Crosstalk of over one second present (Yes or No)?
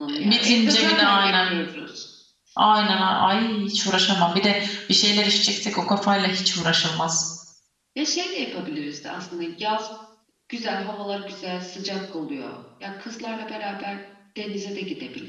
Yes